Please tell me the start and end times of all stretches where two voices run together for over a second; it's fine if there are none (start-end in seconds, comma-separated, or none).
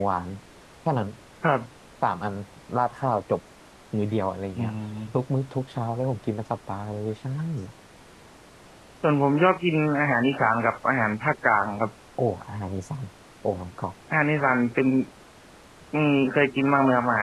none